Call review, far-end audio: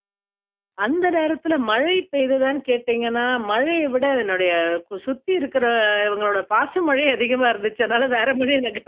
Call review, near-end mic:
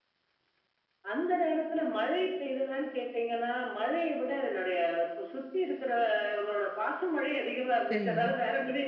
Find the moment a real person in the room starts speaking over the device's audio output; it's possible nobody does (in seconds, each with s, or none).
7.9 s